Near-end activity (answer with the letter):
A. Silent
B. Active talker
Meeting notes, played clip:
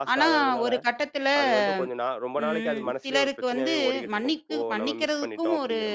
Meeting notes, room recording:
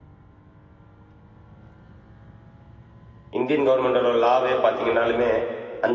B